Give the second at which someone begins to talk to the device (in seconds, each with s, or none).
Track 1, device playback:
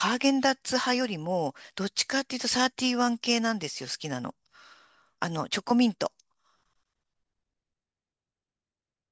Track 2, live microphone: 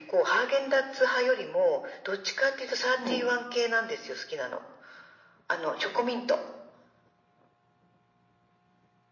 2.9 s